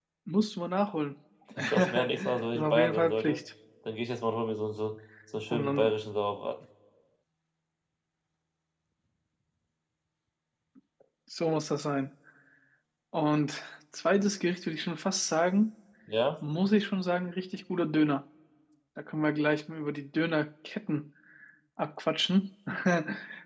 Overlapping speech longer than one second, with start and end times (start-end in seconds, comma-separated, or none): 1.6-3.4